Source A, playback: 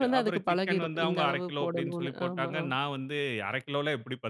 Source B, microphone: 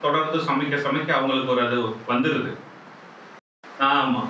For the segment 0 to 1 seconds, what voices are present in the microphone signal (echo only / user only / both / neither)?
user only